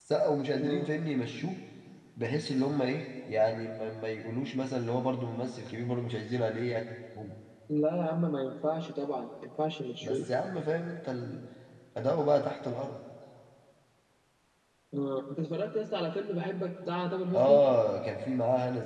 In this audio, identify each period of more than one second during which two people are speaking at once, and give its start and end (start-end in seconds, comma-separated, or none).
none